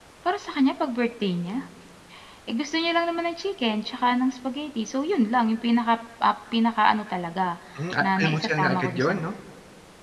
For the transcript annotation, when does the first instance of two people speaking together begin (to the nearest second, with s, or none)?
8 s